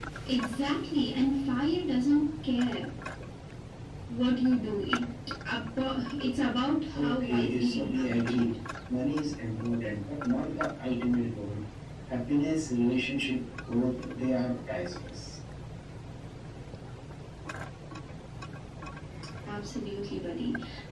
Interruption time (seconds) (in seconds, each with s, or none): 6.9 s